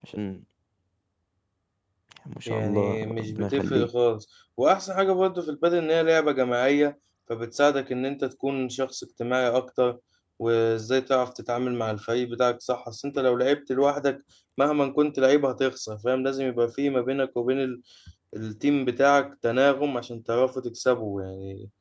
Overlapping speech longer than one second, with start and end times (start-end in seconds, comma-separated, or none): 2.5-3.9